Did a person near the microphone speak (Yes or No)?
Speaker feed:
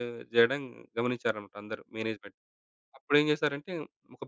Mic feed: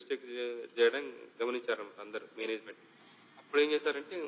No